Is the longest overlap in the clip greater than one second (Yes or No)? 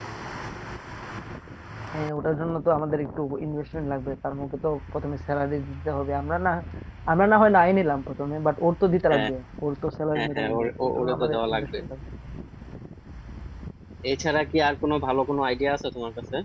Yes